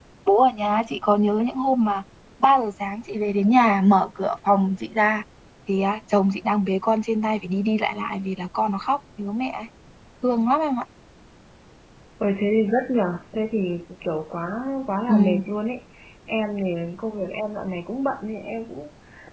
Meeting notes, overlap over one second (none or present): none